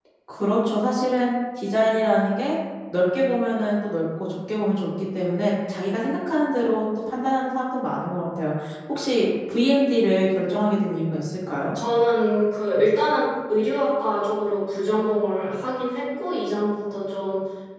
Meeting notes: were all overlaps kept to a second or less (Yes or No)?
Yes